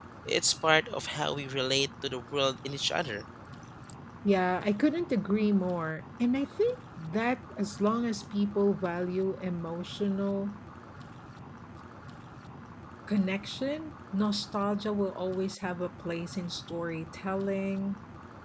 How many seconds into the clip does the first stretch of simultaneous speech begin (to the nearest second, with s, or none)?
none